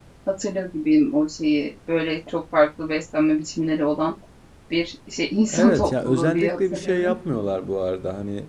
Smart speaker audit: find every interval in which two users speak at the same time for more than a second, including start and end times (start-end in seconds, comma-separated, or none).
5.5-7.2